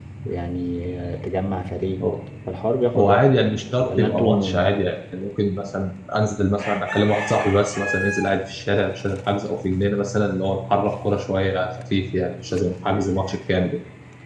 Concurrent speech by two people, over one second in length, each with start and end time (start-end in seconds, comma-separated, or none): 3.0-4.6